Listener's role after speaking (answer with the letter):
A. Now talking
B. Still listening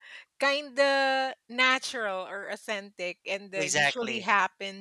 B